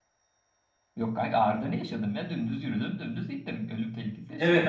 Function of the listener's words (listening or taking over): taking over